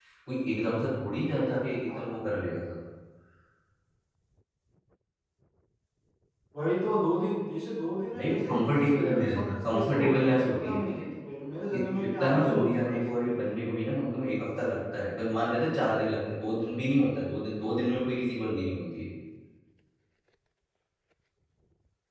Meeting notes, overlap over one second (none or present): present